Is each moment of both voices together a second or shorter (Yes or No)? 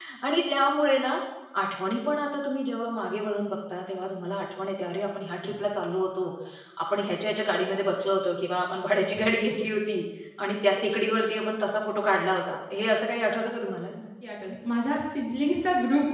Yes